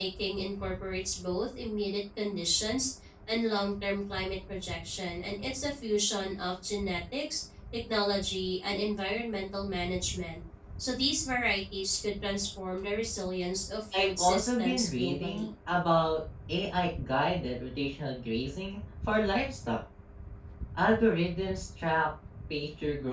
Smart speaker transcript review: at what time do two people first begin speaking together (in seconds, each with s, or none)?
13.9 s